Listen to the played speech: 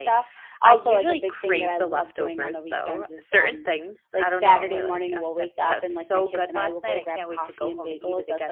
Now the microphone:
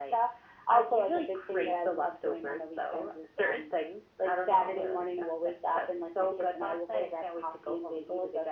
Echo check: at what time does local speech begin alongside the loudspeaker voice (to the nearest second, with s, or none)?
none